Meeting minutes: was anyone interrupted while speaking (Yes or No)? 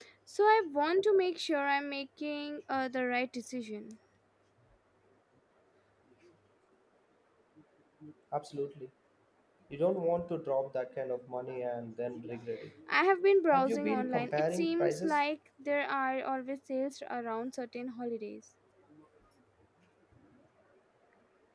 Yes